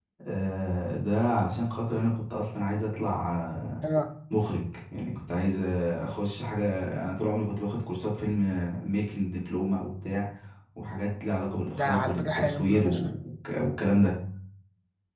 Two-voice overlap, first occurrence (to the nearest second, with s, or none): 12 s